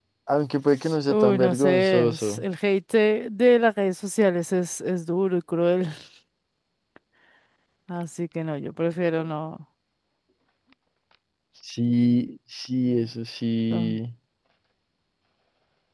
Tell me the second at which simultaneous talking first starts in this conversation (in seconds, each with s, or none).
1.1 s